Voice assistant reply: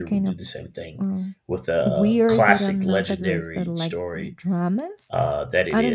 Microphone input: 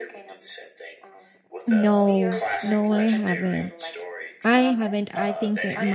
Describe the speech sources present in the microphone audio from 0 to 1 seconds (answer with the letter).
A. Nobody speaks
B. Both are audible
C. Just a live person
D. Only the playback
D